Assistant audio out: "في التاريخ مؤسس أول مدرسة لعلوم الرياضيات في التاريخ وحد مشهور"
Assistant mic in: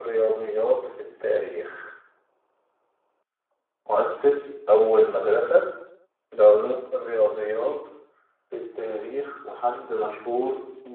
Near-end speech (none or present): none